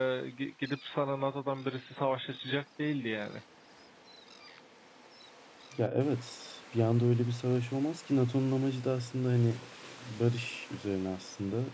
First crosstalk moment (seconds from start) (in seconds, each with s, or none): none